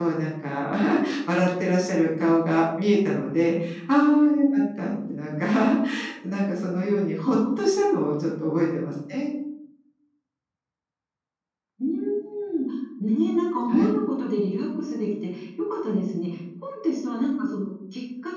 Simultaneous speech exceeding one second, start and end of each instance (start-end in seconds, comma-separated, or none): none